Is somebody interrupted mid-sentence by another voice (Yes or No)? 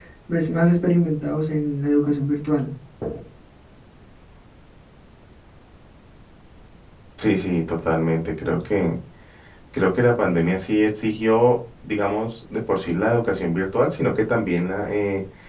No